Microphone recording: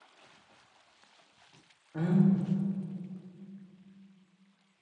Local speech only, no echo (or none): อืม